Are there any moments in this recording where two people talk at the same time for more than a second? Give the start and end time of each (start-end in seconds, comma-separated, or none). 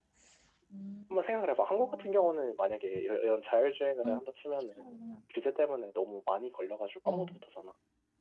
none